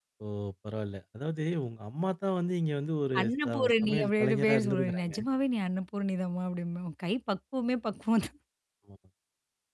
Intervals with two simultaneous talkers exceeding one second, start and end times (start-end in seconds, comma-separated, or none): 3.2-5.1